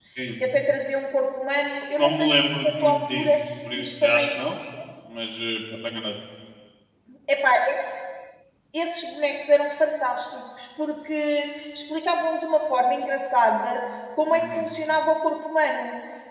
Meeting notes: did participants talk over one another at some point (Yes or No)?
Yes